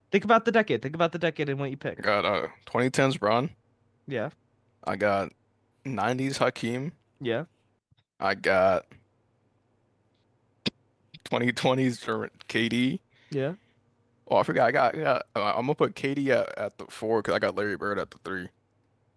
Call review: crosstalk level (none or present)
none